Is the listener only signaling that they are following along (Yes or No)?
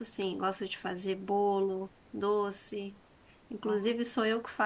Yes